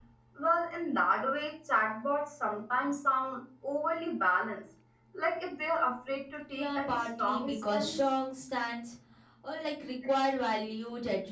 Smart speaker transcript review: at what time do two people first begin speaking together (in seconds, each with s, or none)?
6.5 s